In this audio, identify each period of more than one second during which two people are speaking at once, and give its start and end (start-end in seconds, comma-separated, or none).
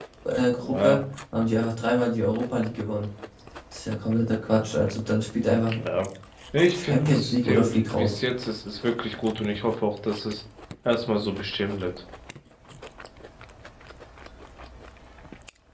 6.7-8.2